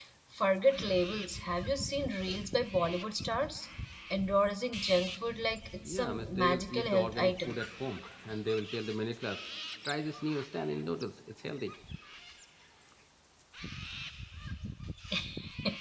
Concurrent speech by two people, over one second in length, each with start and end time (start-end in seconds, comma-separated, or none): 5.9-7.6